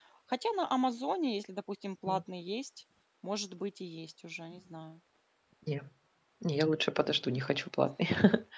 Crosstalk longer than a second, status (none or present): none